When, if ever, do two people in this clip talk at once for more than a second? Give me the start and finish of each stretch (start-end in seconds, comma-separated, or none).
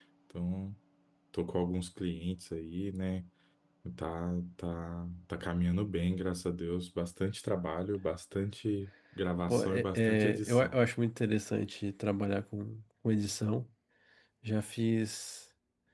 9.5-10.8